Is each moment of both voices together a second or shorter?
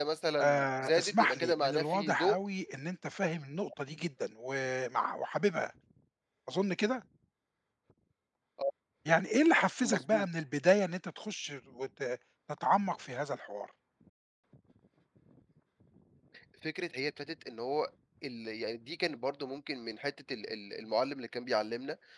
No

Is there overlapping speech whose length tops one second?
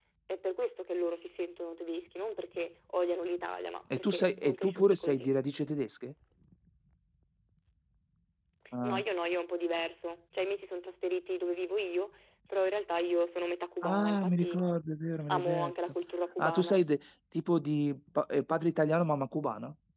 Yes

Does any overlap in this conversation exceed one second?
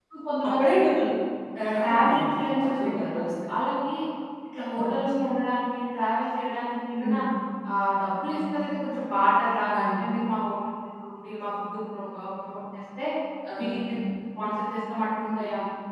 Yes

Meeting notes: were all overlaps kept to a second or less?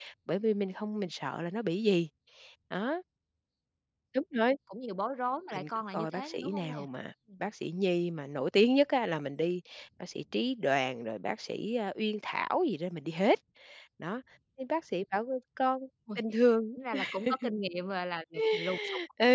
No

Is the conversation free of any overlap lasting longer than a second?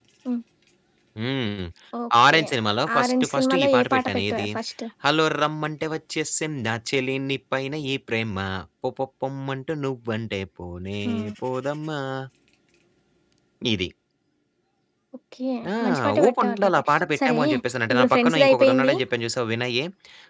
No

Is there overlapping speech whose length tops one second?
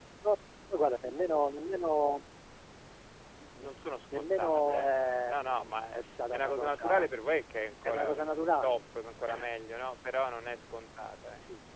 Yes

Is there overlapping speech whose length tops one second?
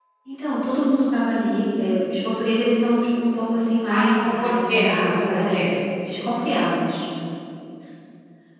Yes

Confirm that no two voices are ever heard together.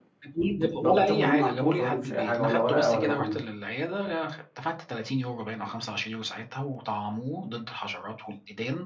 No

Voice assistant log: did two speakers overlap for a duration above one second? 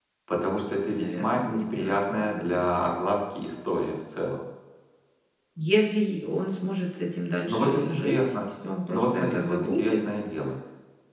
Yes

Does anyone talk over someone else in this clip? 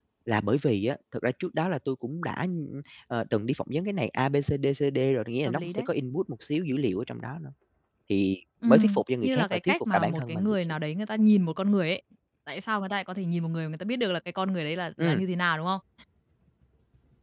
Yes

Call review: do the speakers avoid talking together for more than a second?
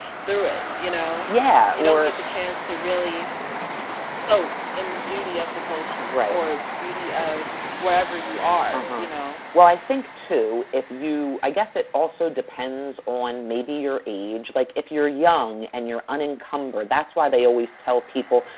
Yes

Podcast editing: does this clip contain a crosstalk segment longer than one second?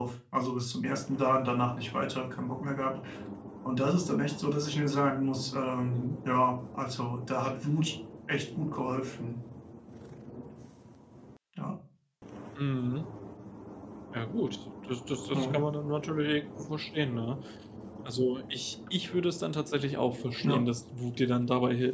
No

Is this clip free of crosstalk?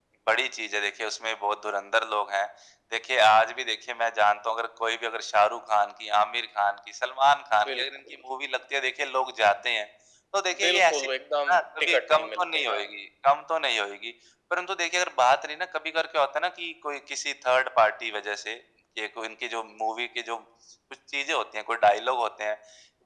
No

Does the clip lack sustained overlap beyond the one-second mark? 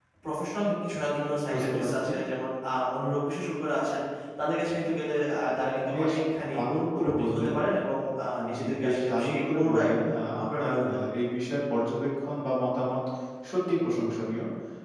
No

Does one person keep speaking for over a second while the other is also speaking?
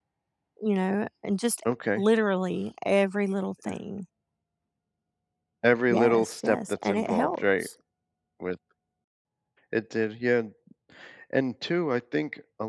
Yes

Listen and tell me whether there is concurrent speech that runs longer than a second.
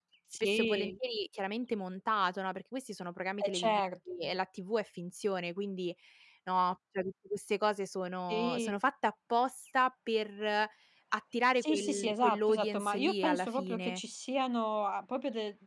Yes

